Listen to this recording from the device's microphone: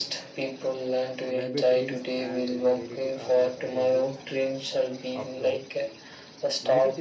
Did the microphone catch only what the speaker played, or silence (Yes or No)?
No